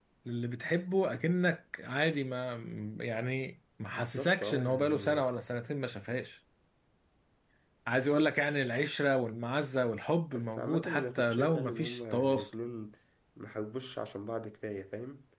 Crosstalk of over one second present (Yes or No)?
Yes